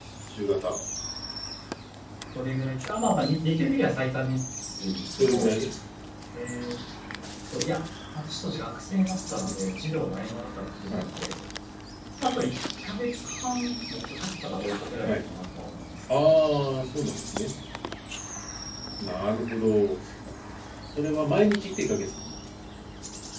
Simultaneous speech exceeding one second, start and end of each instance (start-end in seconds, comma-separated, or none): none